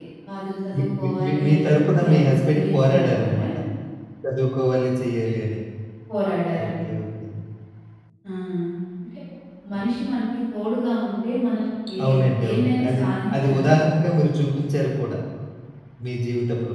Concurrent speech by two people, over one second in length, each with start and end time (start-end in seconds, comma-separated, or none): 0.7-3.3, 12.4-13.7